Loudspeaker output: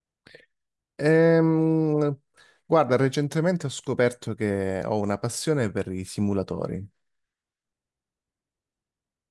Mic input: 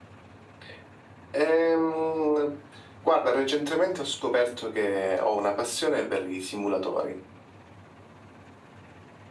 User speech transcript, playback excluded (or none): none